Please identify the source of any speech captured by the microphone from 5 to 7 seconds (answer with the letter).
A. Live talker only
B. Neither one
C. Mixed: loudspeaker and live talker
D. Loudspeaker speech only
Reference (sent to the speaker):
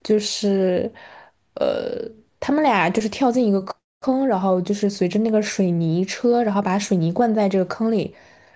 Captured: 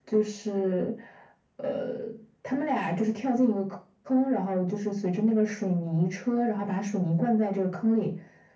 D